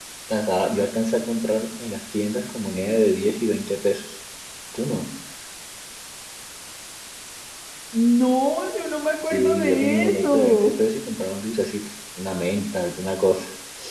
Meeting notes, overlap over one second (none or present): present